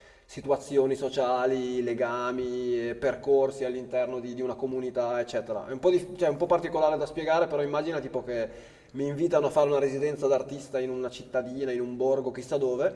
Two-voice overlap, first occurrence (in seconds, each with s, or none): none